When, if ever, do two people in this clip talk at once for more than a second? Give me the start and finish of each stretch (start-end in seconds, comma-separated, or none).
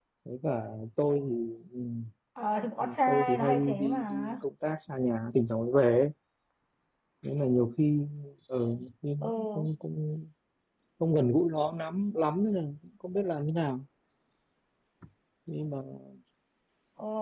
2.8-4.3